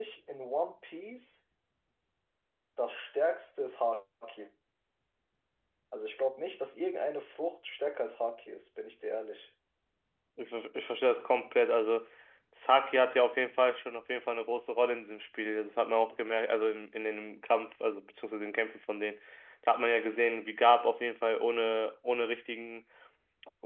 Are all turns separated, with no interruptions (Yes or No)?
Yes